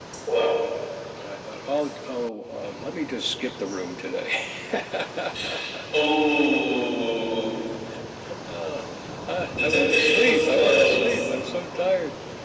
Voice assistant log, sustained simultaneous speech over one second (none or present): present